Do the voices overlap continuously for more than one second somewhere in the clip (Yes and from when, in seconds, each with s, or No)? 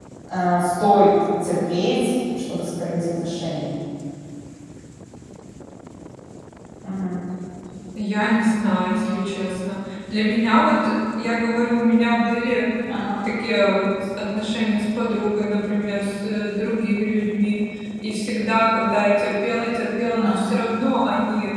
No